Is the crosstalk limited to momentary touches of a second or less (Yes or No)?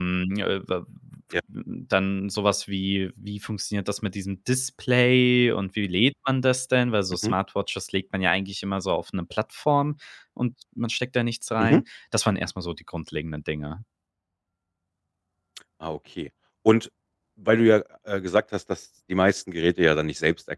Yes